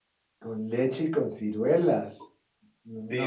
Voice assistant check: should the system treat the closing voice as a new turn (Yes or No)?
Yes